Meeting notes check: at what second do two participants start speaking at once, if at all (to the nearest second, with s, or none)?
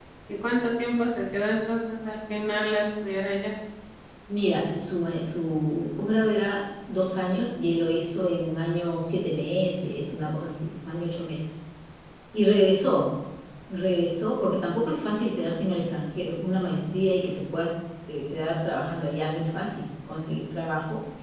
none